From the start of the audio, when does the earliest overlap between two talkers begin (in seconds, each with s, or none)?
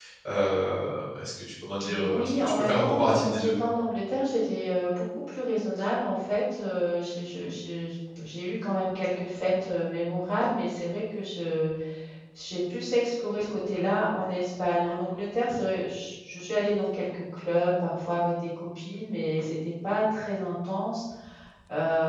1.8 s